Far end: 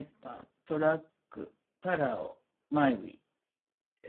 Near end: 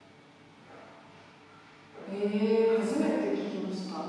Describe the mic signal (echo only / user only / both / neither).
user only